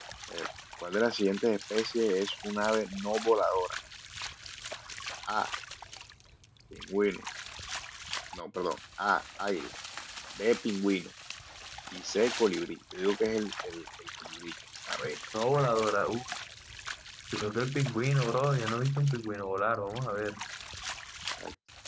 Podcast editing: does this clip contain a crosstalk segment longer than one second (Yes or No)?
No